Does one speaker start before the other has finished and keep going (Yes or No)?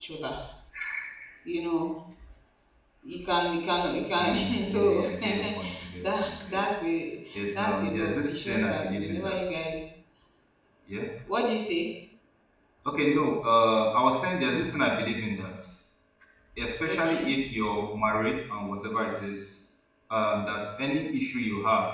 Yes